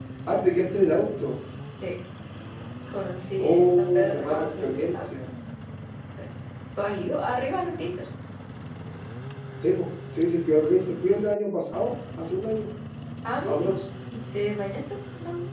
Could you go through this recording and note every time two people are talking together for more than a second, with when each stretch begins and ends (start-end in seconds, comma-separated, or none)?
3.4-5.0